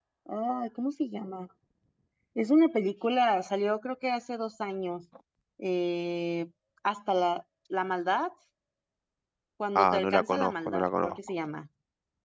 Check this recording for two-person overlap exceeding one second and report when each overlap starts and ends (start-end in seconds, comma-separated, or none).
9.8-11.2